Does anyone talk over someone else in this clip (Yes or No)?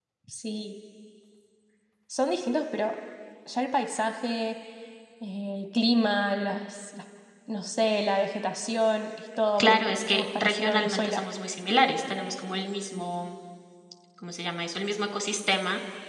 Yes